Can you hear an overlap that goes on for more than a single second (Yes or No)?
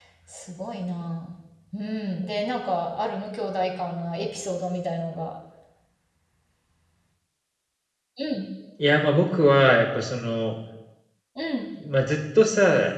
No